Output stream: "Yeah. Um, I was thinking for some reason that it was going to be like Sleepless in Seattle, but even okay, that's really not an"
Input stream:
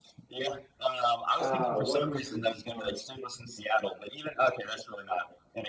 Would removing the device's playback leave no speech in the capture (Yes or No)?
No